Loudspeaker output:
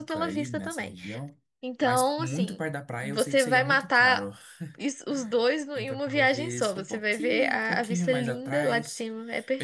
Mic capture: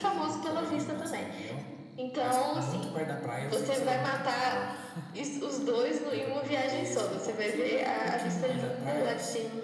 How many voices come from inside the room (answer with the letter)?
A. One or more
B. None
B